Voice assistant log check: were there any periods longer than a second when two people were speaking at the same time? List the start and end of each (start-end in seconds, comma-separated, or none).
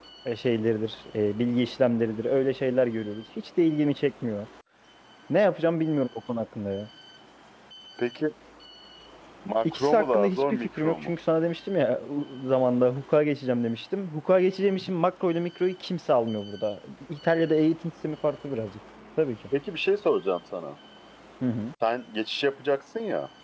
9.7-11.1